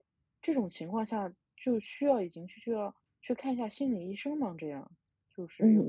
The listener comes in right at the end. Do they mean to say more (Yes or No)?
Yes